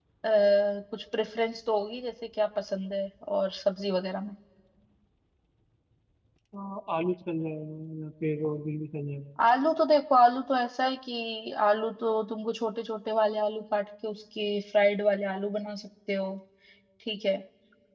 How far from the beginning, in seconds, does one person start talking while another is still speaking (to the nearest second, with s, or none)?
none